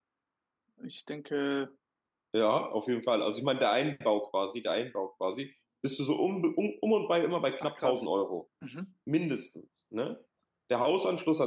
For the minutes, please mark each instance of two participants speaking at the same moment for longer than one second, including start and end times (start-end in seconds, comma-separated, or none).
none